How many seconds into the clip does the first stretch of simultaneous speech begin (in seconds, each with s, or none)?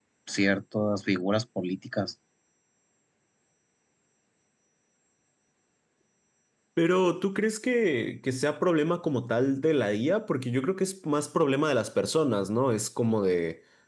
none